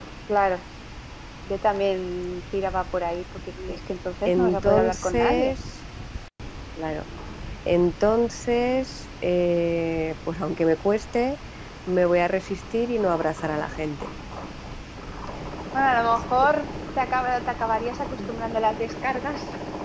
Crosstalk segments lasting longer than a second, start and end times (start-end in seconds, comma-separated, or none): 4.3-5.5